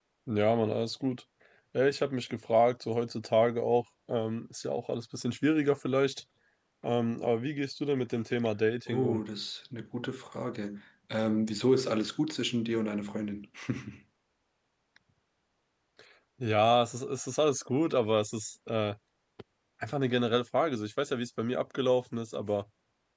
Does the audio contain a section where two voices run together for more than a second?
No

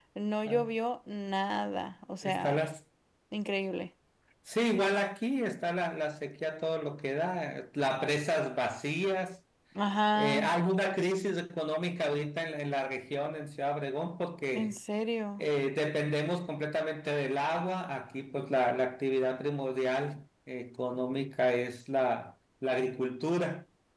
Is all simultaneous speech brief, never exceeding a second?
Yes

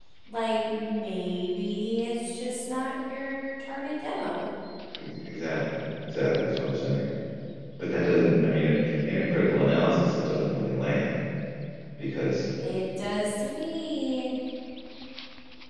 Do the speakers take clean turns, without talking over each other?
Yes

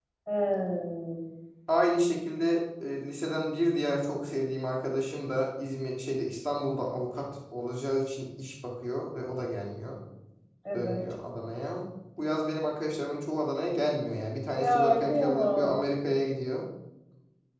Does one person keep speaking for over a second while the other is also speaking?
Yes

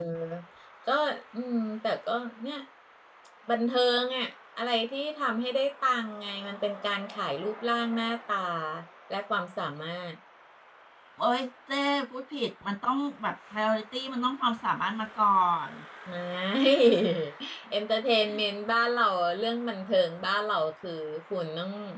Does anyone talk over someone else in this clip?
No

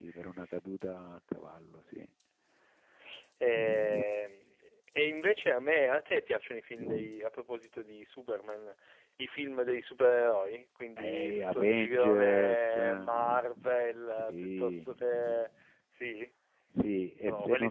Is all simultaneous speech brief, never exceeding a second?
No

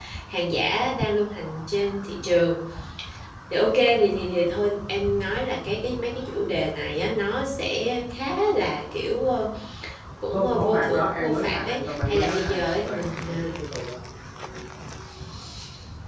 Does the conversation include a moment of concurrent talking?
Yes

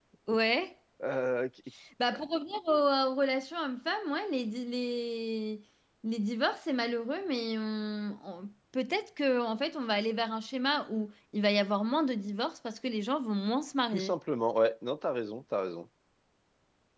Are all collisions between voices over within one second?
Yes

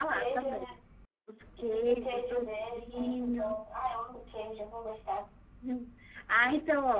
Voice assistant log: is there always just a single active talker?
No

